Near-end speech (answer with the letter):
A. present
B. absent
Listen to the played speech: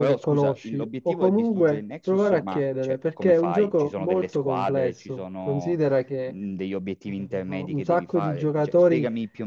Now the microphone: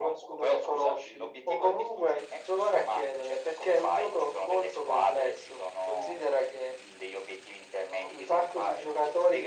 B